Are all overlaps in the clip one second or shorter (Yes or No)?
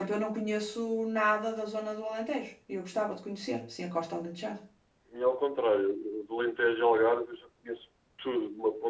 Yes